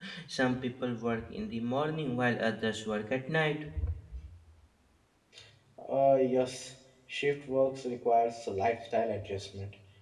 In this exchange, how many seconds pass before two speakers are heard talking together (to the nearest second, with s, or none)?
none